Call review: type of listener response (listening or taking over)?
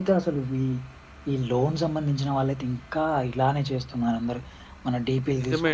taking over